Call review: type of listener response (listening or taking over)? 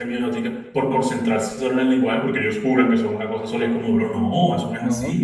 taking over